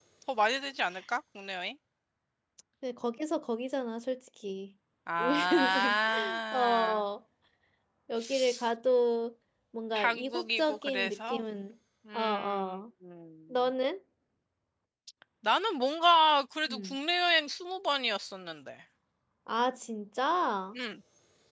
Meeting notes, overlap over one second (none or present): present